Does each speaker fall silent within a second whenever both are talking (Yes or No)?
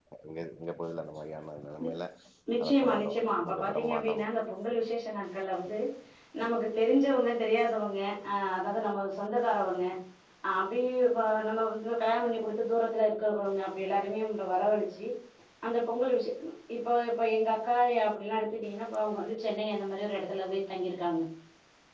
No